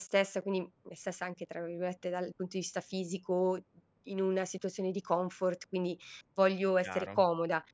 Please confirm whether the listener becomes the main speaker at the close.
No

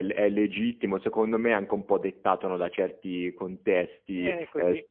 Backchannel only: Yes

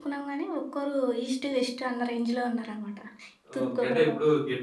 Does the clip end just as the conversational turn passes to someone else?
Yes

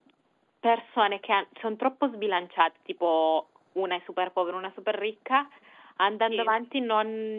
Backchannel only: Yes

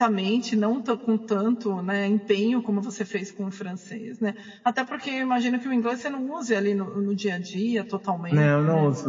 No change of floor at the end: No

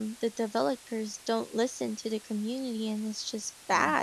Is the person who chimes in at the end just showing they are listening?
No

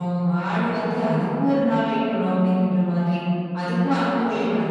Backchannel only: Yes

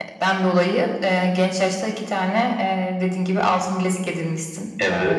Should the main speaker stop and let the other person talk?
No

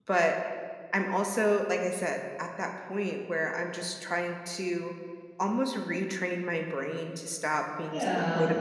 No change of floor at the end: Yes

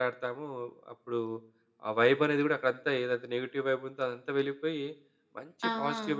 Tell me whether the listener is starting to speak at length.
No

